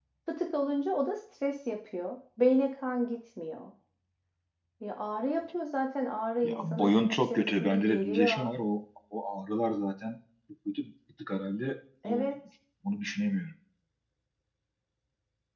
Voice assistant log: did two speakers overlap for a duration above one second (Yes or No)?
Yes